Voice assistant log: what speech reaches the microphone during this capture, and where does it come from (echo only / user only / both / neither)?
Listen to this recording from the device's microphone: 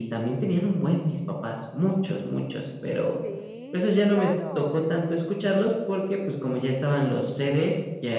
both